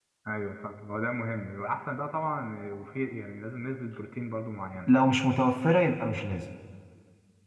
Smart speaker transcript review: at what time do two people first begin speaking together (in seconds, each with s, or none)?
none